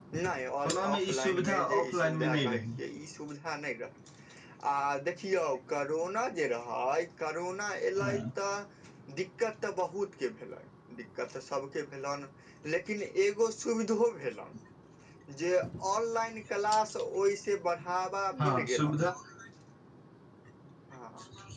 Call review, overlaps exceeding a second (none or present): present